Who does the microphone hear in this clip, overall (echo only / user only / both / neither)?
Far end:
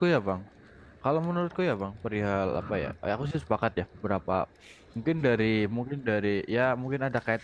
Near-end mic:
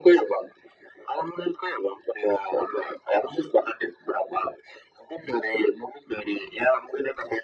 echo only